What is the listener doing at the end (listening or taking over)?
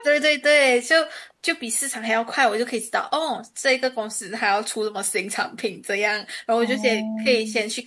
listening